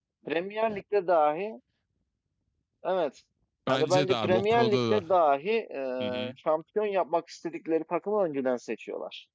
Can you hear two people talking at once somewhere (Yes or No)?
Yes